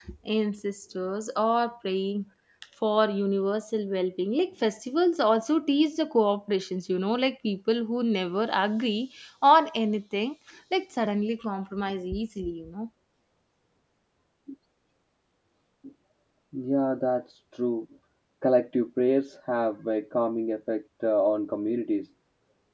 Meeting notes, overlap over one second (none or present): none